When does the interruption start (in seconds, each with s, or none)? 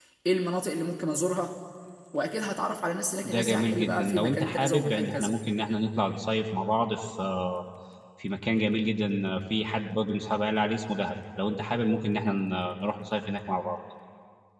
3.2 s